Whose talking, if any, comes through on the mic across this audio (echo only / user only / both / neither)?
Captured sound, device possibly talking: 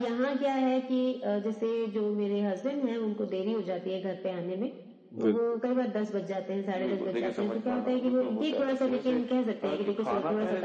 both